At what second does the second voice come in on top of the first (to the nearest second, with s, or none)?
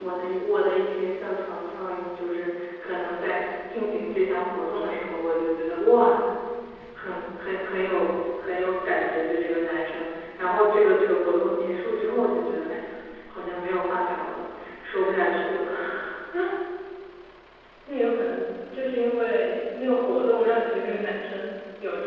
none